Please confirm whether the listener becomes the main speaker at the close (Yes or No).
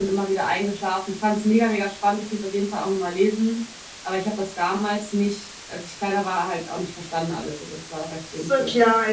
Yes